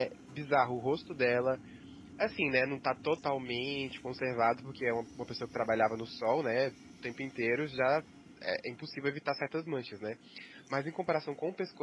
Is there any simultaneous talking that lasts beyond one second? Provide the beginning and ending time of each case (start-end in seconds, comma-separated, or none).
none